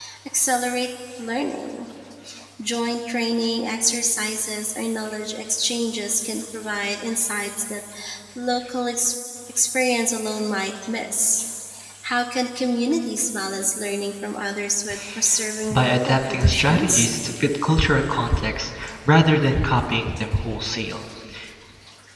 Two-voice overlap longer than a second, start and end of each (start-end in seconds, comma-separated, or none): 15.7-17.1